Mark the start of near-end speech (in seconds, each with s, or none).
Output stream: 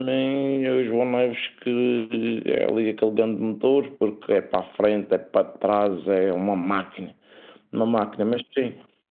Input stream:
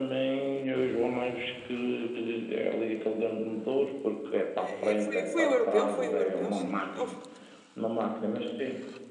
4.5 s